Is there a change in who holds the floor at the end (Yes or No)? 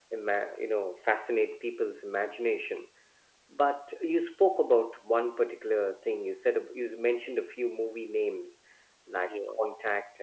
No